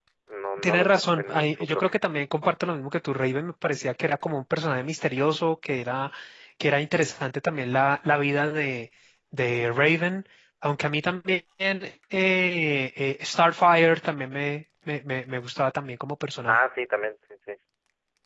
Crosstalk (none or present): present